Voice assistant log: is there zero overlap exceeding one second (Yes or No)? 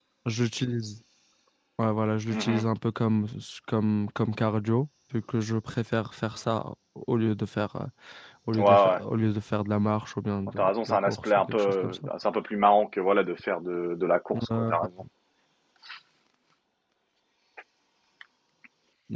No